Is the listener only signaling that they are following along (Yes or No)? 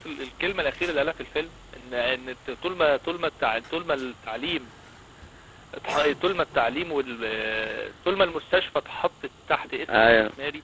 Yes